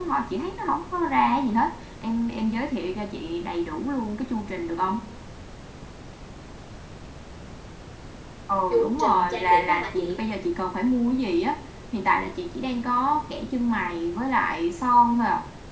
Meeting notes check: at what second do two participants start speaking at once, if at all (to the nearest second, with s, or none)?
9 s